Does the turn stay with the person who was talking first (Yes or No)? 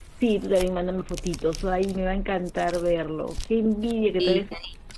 Yes